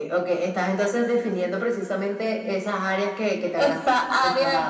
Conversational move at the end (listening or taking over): taking over